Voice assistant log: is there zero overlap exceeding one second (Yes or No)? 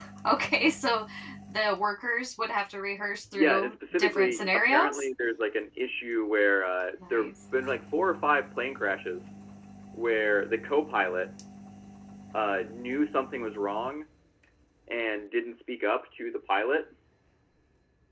No